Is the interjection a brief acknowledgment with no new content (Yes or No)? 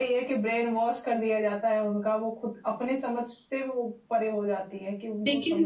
No